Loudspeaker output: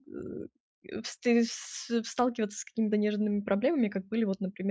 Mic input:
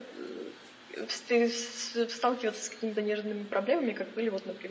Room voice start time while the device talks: none

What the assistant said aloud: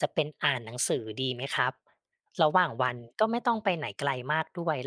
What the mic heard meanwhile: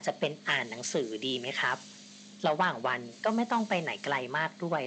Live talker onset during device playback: none

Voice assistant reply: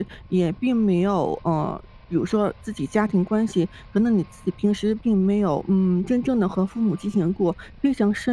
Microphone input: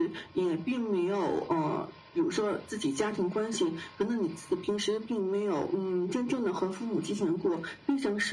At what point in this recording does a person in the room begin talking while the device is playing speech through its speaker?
none

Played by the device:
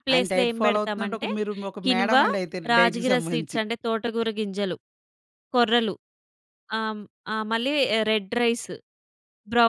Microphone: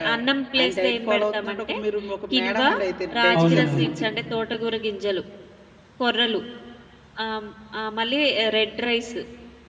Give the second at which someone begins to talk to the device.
3.4 s

